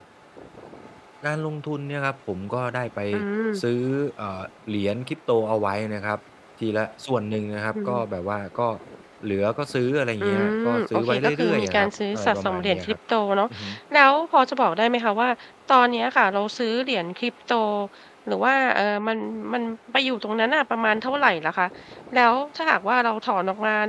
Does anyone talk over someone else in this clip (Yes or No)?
Yes